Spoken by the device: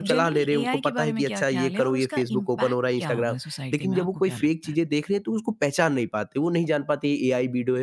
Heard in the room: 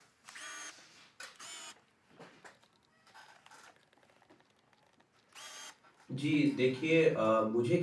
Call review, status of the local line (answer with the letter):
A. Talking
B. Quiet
A